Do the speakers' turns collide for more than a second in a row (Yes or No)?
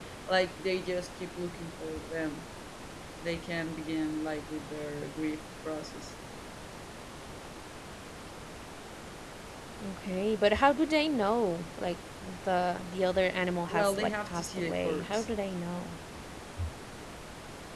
Yes